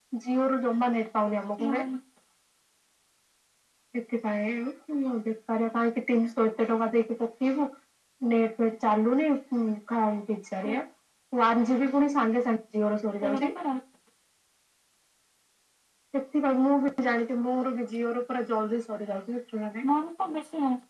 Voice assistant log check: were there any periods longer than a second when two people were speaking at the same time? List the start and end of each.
none

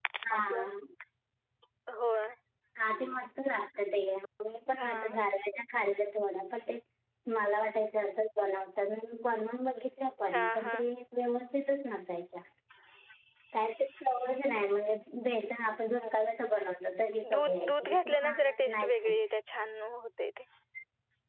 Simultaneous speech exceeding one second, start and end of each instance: 17.3-19.2

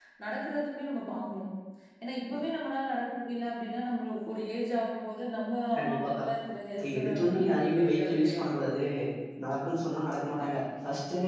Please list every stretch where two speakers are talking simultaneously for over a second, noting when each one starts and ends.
6.8-8.4

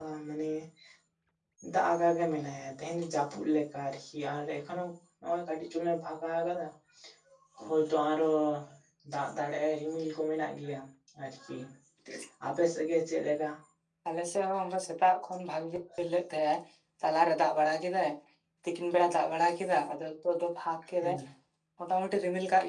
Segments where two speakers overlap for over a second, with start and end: none

